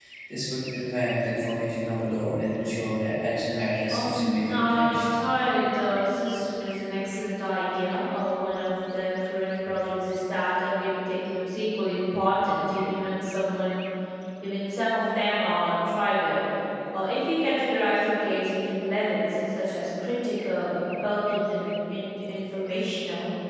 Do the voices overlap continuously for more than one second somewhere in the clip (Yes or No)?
Yes